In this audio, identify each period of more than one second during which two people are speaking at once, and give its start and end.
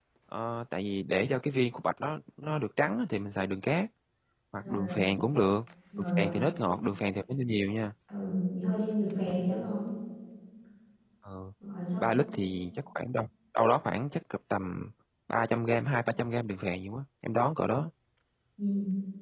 none

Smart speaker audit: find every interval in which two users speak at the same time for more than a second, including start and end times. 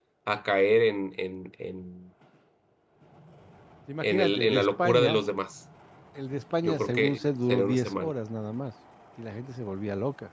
4.0-5.2, 6.6-8.1

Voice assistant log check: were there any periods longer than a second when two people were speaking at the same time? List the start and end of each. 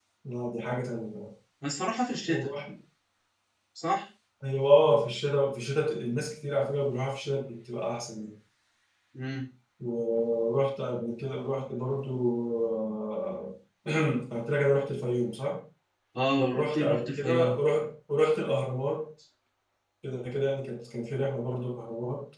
16.4-17.6

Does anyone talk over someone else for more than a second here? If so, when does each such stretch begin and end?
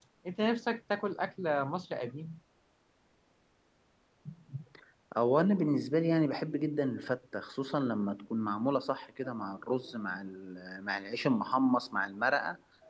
none

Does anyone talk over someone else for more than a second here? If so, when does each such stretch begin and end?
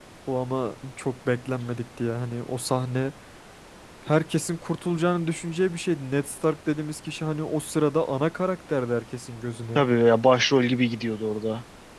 none

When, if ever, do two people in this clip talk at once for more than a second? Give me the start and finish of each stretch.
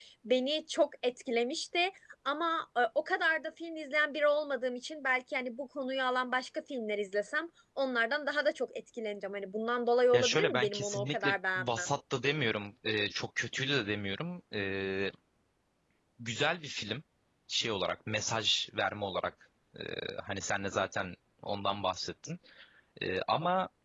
10.1-11.9

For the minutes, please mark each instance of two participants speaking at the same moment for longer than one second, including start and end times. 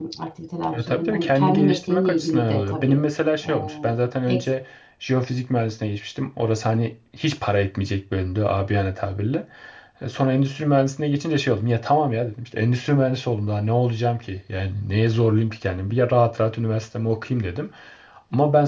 0.7-3.0

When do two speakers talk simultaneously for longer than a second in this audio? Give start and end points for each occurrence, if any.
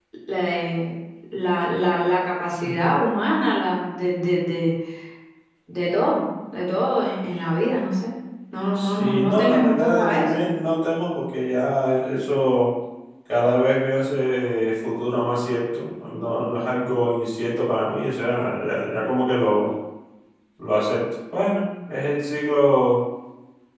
8.8-10.3

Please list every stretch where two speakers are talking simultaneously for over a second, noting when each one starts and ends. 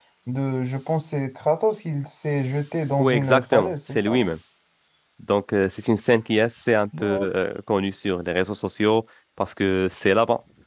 3.0-4.3

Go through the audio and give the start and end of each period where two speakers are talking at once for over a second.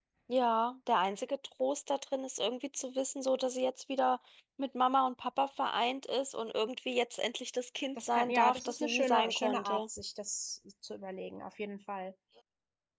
8.0-9.8

